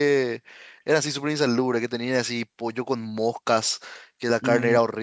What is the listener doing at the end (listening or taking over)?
listening